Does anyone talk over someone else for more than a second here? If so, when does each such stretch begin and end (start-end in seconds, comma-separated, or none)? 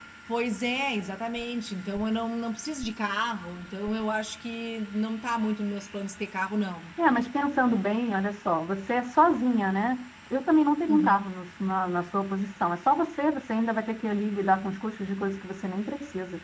none